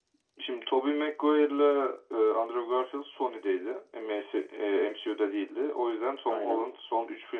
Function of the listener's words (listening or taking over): listening